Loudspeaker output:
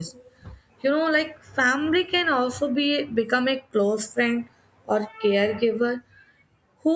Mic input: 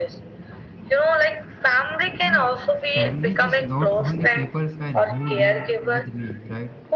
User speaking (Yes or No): Yes